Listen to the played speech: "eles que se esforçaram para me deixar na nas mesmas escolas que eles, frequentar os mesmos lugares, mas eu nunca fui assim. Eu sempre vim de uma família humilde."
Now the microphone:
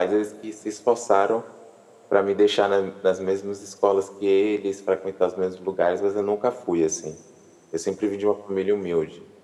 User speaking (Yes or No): No